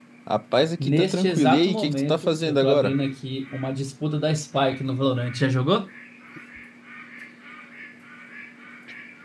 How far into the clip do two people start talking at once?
0.8 s

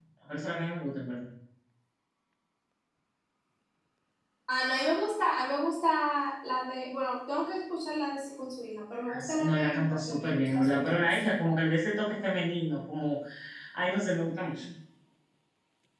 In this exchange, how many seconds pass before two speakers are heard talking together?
9.0 s

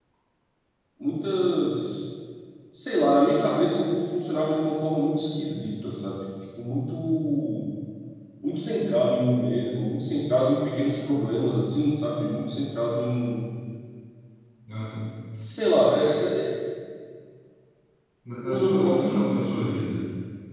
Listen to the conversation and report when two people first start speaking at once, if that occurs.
18.4 s

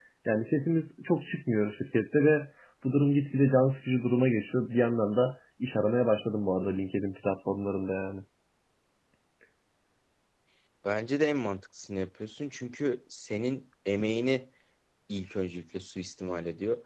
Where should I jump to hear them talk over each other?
none

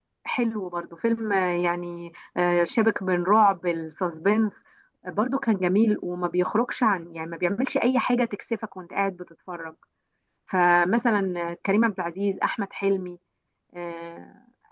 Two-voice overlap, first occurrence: none

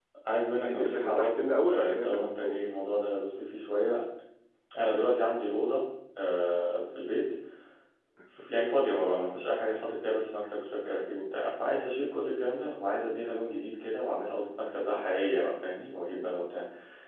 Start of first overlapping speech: 0.6 s

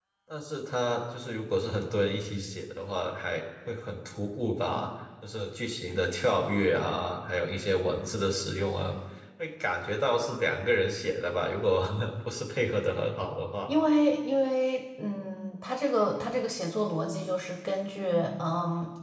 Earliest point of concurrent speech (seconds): none

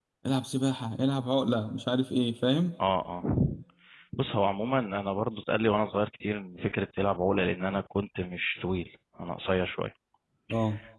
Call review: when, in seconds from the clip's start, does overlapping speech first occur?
none

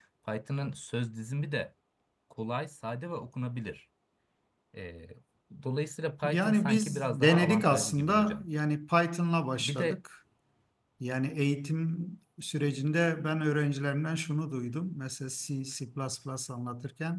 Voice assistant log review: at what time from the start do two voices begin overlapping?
6.2 s

